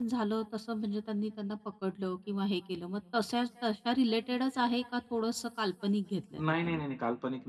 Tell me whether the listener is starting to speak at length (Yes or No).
Yes